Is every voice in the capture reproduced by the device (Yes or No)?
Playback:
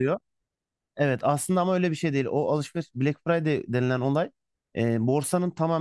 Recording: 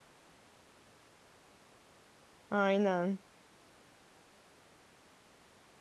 No